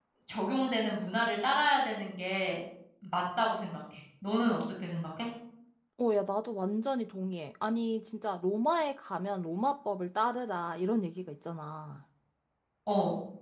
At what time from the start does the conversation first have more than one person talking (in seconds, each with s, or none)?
none